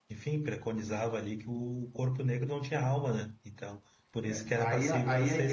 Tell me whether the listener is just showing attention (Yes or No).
No